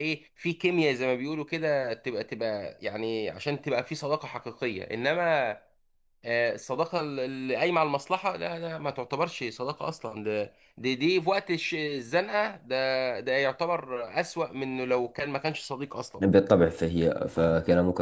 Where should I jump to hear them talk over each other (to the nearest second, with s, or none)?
none